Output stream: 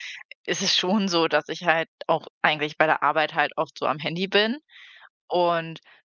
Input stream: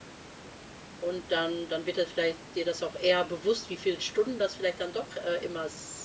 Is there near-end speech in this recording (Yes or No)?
Yes